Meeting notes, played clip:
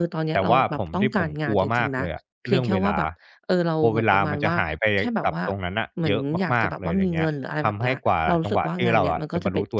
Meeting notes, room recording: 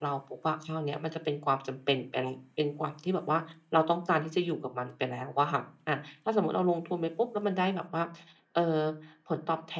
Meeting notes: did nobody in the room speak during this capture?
No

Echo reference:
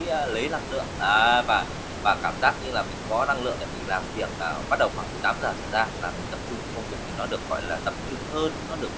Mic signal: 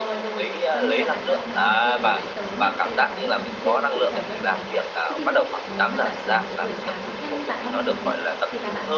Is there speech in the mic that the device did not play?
Yes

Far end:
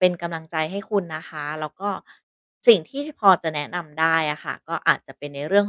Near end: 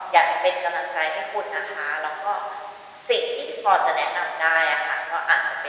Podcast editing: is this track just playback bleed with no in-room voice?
Yes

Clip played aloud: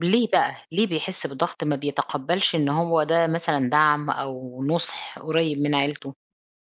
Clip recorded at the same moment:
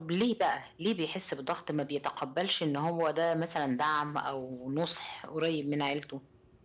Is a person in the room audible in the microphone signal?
No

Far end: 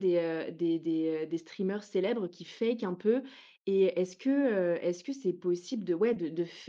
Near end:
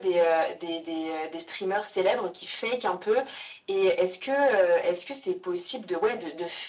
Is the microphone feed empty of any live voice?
Yes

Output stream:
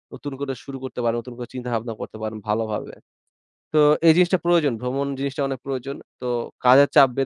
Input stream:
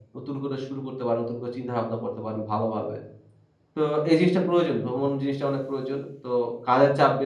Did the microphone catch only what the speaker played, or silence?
Yes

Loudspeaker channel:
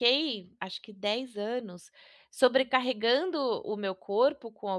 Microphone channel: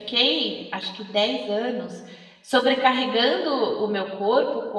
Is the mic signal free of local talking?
Yes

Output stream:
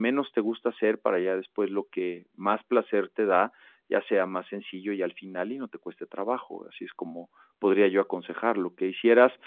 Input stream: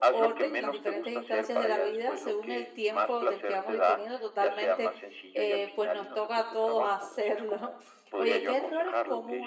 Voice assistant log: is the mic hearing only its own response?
No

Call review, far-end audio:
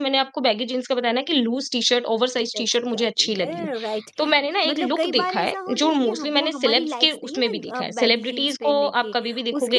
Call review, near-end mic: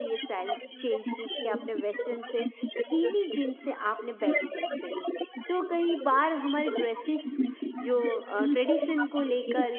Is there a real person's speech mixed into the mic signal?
Yes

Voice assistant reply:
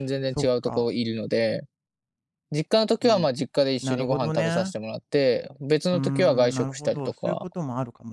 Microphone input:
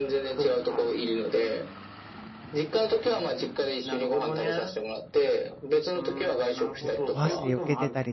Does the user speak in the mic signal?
Yes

